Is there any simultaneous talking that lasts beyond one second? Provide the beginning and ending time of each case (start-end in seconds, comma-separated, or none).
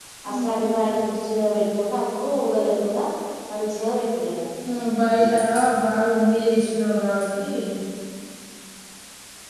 none